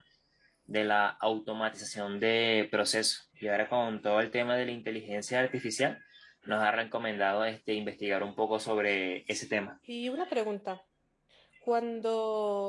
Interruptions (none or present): none